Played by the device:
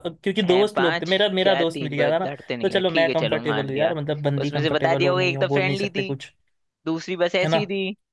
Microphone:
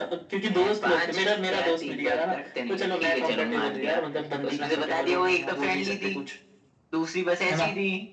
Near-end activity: none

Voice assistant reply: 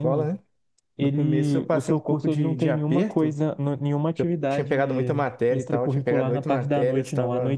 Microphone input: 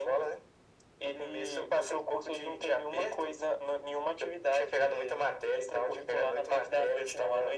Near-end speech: none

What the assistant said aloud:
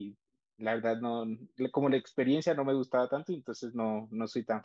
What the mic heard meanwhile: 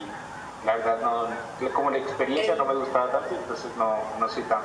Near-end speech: present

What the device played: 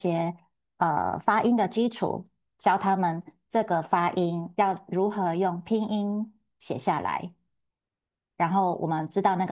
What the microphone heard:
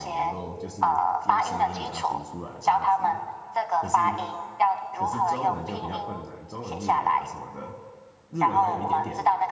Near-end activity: present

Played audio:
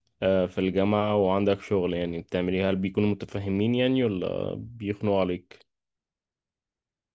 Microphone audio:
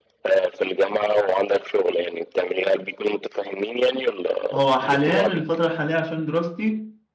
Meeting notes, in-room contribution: present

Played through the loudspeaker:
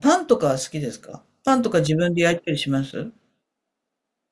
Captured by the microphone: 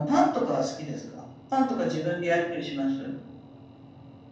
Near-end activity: none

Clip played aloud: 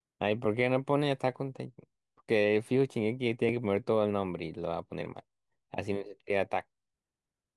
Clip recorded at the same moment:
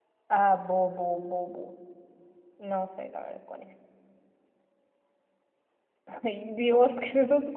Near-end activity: present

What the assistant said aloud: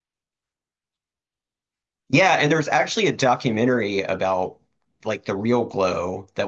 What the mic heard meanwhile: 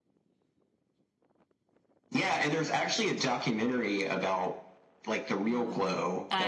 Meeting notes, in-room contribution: present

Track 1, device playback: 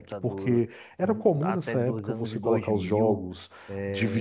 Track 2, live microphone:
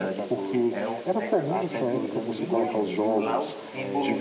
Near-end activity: present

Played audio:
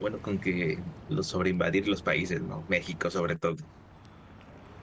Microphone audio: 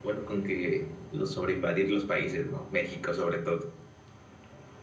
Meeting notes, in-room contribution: none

